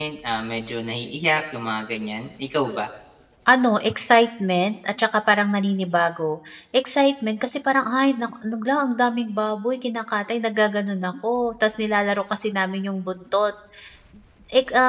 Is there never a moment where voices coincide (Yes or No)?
Yes